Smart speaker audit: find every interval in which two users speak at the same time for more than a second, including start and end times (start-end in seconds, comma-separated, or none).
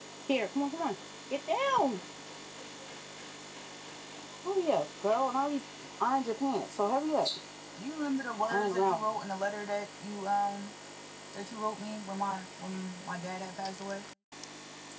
none